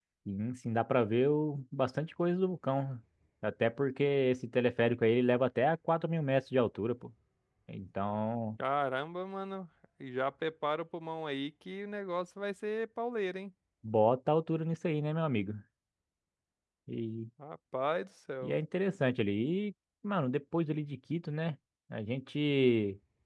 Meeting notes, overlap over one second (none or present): none